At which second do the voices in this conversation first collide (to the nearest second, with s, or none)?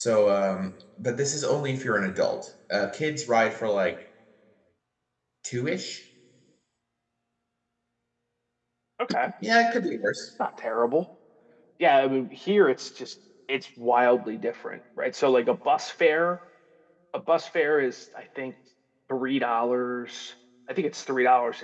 none